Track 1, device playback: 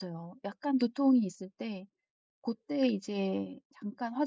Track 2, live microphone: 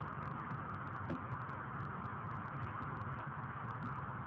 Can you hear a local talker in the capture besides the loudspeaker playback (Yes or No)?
No